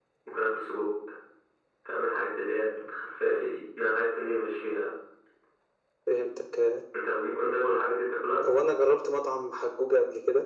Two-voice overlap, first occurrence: none

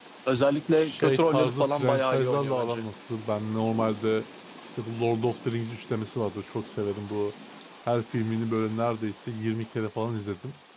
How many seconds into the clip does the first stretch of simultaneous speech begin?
0.8 s

